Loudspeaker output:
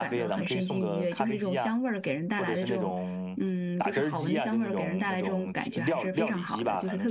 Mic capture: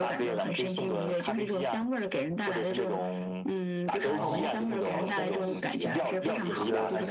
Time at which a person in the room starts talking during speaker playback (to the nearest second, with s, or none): 4 s